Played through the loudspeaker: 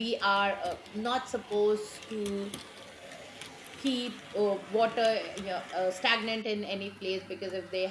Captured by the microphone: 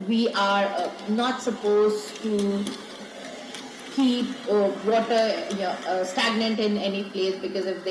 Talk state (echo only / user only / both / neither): echo only